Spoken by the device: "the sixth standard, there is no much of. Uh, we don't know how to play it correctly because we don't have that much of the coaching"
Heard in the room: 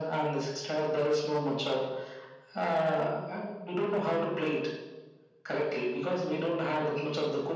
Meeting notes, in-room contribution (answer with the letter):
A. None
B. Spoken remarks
A